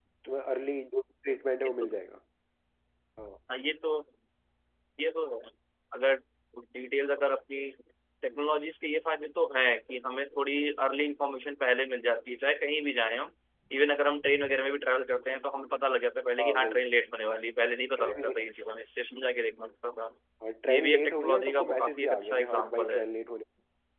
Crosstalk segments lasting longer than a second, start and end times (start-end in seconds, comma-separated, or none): 20.7-23.0